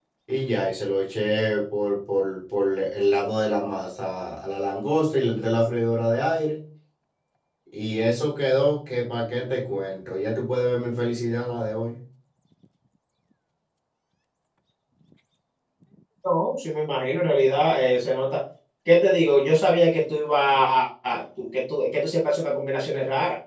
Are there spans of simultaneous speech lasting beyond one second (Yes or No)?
No